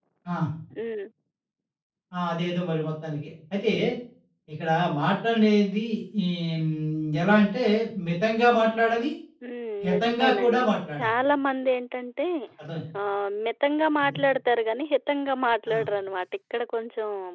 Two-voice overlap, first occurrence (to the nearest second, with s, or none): 10 s